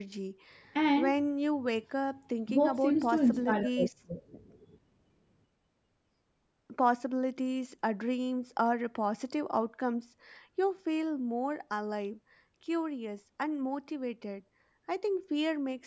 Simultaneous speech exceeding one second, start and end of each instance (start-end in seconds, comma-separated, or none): 2.5-3.9